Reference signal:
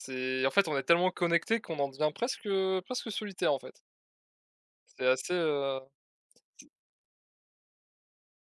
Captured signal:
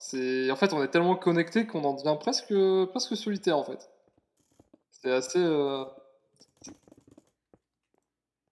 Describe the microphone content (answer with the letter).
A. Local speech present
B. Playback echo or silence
B